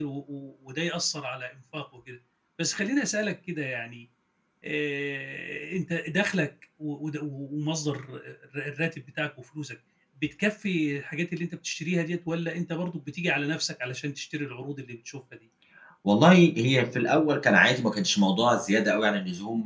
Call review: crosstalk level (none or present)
none